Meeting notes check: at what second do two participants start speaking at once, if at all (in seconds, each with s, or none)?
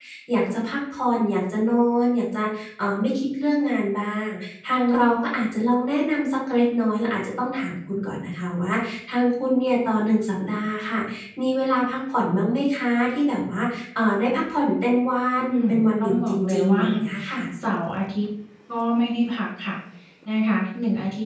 15.3 s